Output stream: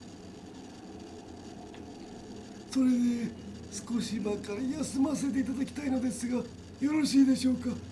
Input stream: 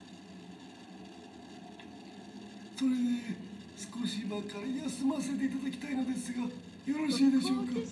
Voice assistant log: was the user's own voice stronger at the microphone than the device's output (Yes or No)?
No